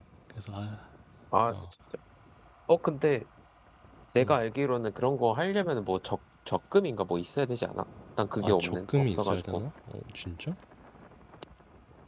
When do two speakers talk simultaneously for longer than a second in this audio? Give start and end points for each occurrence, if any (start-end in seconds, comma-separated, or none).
8.4-9.6